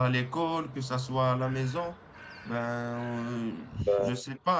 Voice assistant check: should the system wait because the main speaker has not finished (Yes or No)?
Yes